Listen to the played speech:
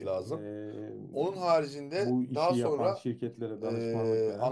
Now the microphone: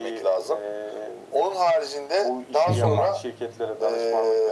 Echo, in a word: present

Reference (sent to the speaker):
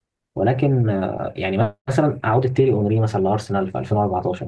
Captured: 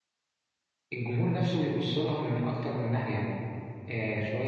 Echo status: none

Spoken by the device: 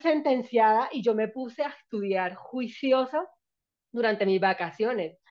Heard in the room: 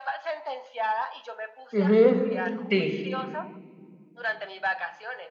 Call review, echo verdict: present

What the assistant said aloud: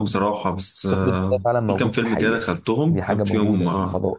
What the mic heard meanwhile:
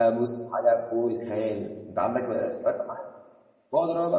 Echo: none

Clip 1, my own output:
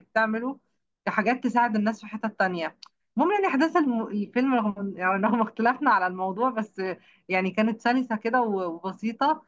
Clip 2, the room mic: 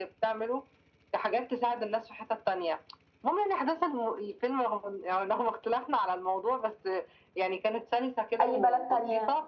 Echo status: present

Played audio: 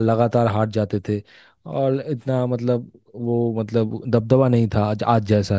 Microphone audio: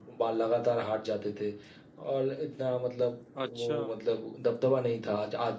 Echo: present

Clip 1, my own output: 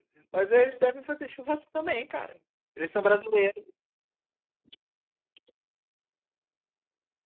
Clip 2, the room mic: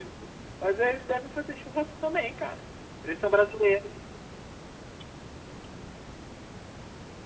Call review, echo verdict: present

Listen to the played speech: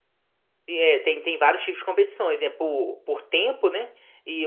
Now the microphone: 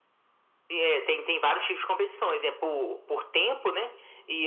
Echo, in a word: present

